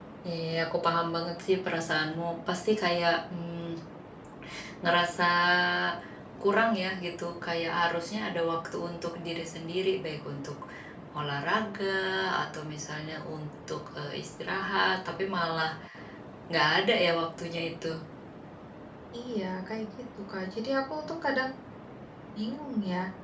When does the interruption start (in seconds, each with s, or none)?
none